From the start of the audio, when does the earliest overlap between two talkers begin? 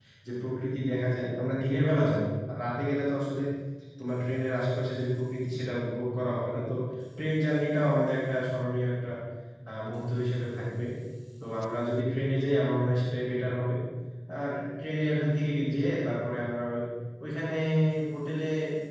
none

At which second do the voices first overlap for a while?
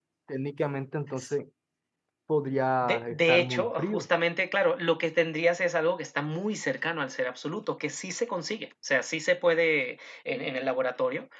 3 s

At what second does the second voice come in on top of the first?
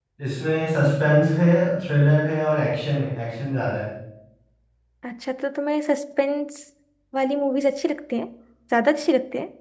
none

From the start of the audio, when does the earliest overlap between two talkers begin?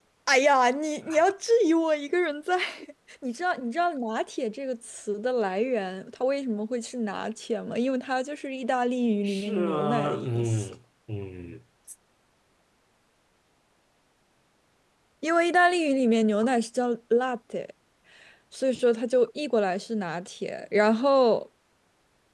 9 s

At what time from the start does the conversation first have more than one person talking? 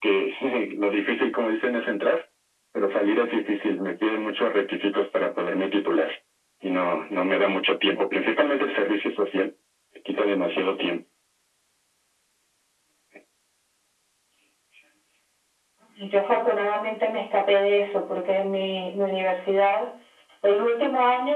none

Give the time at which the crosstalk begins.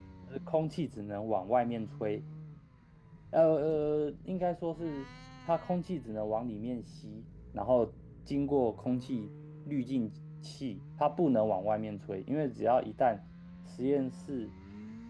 none

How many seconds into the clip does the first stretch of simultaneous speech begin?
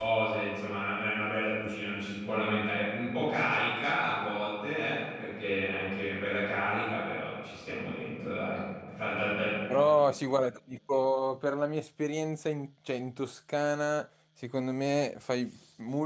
none

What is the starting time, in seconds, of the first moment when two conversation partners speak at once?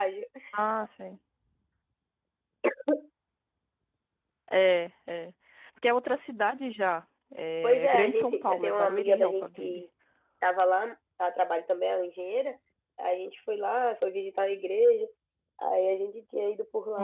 8 s

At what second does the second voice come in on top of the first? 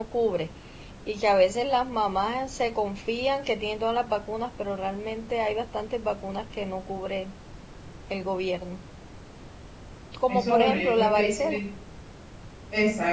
10 s

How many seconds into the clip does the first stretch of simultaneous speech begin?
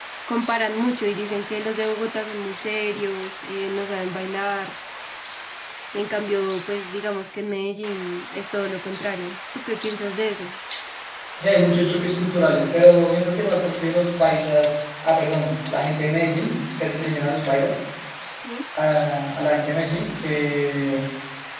none

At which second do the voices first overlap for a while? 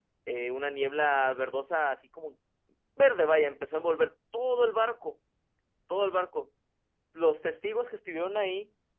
none

